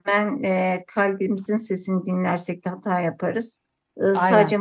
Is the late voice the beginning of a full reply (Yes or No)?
No